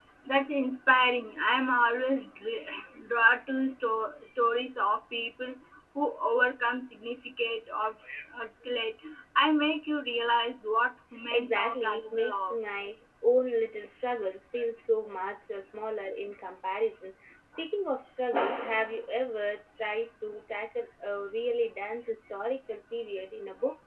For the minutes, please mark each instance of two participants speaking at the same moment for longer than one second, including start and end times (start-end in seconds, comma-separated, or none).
11.3-12.5